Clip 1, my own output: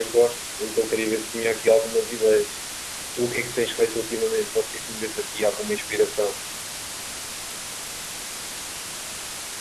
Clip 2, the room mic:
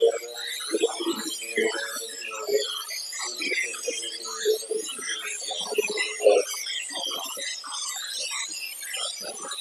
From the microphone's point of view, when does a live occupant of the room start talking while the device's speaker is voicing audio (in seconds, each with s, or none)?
none